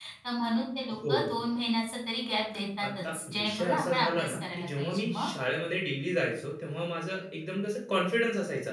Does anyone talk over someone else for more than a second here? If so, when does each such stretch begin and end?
2.8-5.3

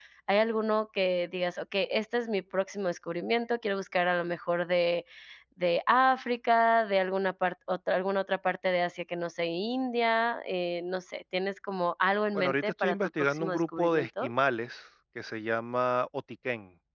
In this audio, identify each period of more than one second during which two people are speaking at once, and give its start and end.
12.4-14.3

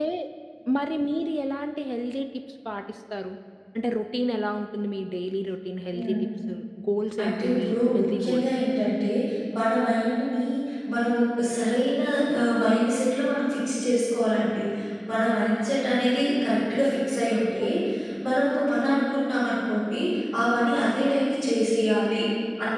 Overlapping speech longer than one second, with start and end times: 7.2-8.4

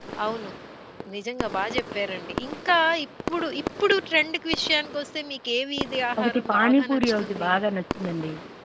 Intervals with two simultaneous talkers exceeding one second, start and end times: 6.2-7.5

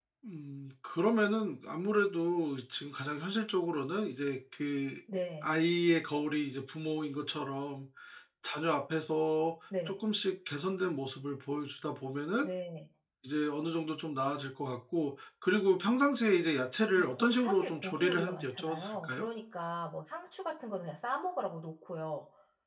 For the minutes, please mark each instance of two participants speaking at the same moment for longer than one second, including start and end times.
17.0-19.2

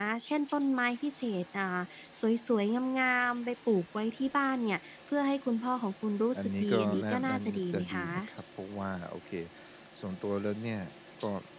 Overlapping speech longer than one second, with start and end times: 6.4-8.3

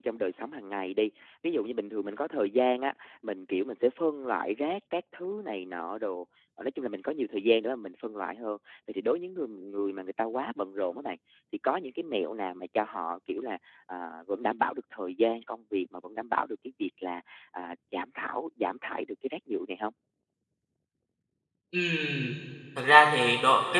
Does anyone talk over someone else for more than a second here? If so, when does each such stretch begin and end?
none

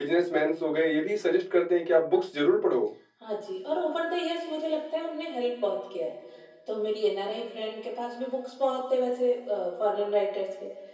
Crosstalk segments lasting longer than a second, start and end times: none

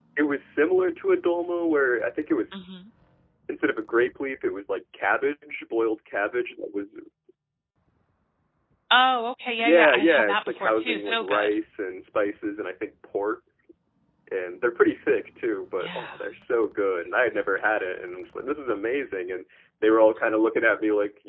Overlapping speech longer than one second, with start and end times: 9.6-11.5

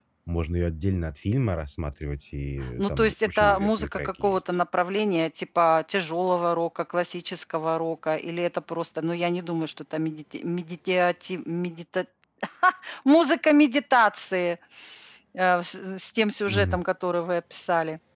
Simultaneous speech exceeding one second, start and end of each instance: 2.8-4.4

